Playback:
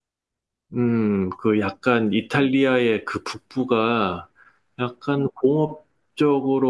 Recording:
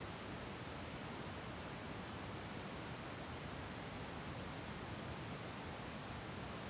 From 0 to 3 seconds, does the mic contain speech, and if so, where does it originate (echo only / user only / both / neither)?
neither